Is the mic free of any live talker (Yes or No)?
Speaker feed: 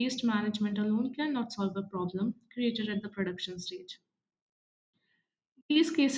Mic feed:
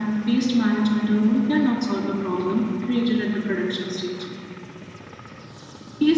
Yes